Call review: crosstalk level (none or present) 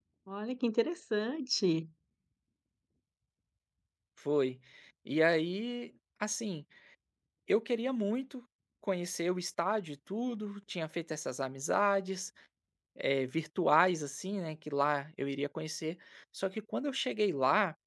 none